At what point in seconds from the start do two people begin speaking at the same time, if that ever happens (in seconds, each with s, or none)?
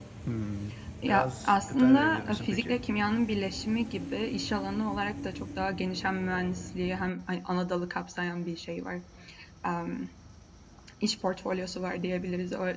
1.0 s